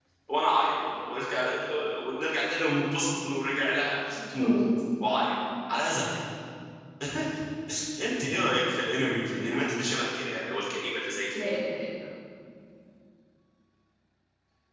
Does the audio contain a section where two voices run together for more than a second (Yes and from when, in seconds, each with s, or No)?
No